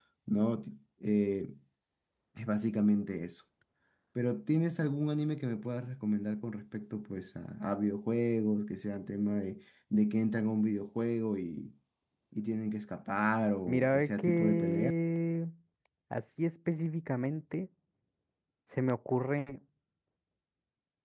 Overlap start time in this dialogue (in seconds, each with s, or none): 13.7 s